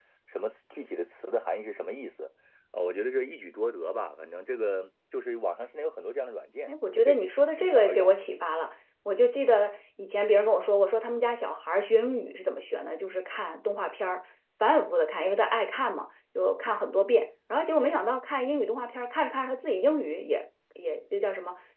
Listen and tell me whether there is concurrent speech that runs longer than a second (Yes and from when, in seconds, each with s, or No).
Yes, from 6.7 s